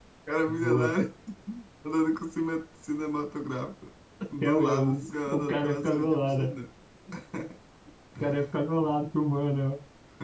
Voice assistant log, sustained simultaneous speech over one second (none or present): present